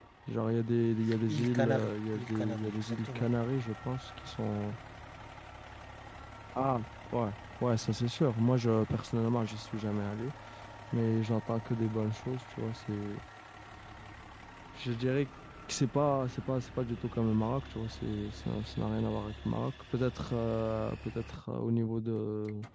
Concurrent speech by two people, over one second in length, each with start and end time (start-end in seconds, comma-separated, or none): 1.3-3.3